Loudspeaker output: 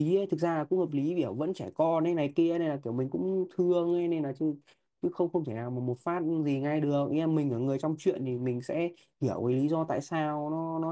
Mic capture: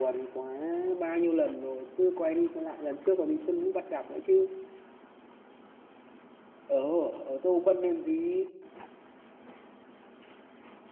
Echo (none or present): none